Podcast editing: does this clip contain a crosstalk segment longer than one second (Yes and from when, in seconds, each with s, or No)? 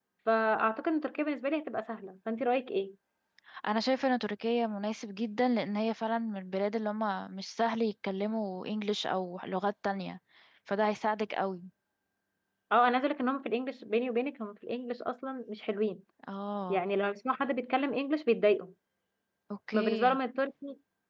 No